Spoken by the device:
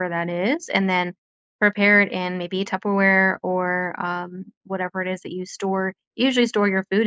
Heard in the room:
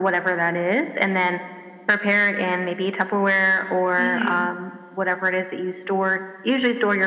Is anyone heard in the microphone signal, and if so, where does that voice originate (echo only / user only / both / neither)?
both